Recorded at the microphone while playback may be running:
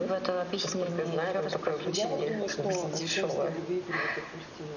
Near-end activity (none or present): present